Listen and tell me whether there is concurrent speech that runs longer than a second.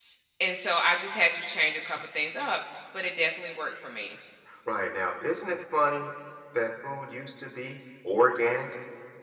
No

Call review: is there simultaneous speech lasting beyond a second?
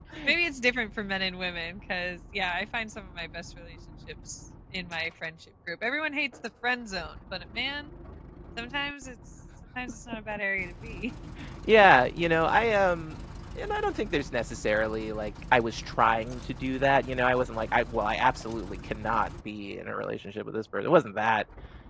No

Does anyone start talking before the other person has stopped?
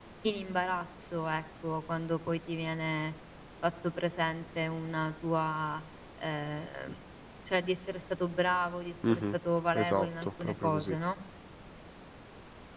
Yes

